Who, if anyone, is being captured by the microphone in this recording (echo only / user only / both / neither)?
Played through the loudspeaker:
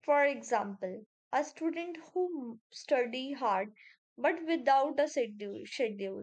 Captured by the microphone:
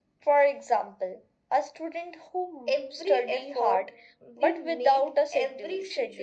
both